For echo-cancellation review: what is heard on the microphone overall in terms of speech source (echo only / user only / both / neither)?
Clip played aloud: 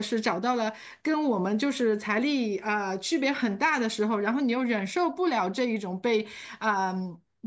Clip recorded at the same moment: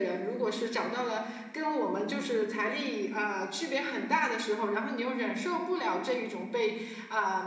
echo only